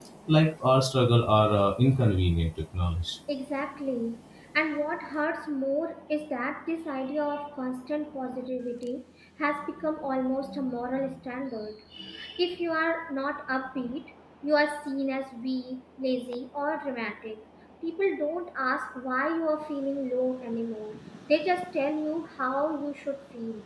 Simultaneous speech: No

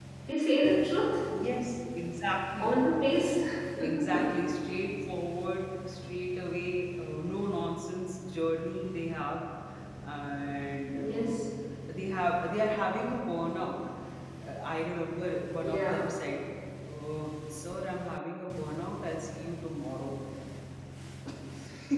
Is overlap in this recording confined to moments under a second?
Yes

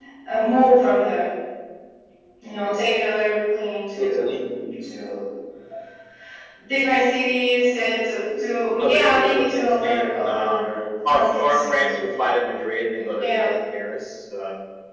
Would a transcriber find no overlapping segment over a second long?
No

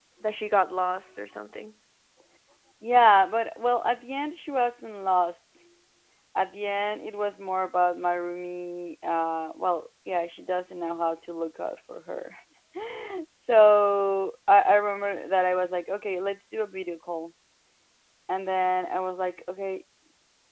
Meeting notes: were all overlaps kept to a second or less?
Yes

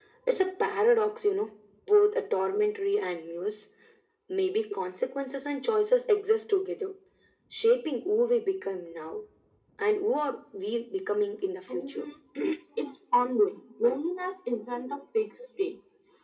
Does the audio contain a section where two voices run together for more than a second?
No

